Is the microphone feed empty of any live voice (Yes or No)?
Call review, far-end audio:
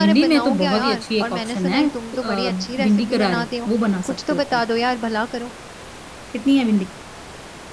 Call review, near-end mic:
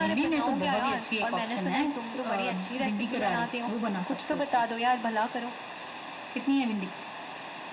Yes